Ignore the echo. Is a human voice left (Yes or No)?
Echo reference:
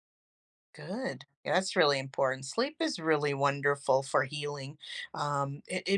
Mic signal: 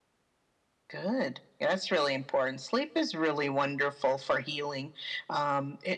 No